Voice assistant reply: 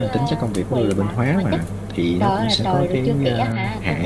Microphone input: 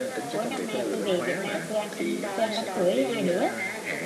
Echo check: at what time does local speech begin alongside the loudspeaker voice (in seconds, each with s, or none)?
0.3 s